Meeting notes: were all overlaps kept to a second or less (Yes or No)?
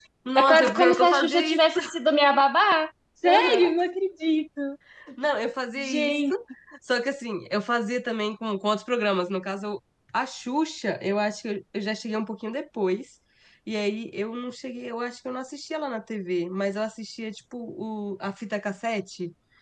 No